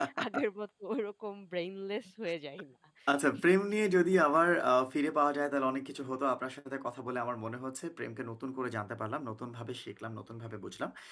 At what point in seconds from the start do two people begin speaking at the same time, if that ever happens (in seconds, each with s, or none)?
none